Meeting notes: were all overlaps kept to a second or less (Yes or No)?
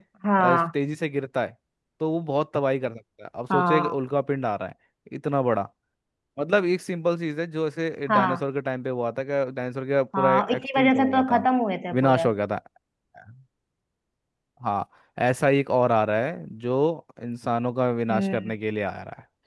No